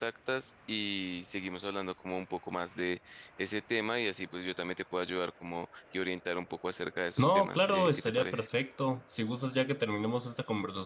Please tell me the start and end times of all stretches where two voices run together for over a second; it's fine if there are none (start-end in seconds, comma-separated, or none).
7.2-8.5